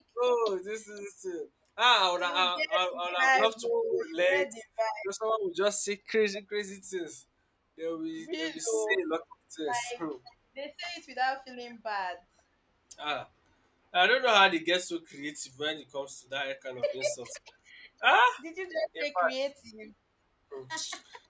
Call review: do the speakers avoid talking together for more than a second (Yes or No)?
No